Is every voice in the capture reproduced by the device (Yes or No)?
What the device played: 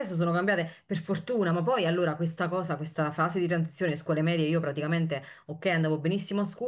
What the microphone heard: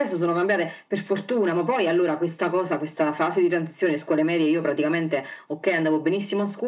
Yes